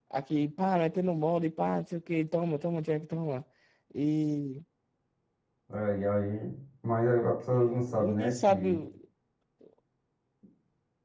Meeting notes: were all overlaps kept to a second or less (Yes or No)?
No